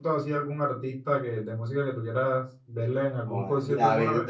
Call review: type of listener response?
taking over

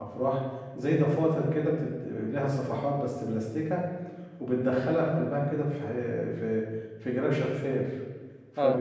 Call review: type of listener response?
taking over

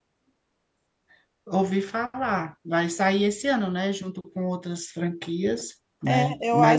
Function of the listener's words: taking over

